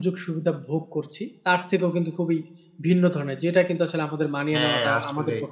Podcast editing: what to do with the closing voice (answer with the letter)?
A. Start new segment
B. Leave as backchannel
B